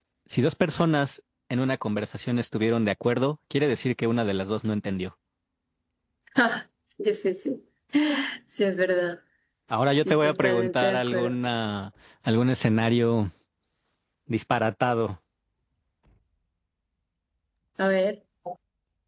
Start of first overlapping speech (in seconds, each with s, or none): 10.1 s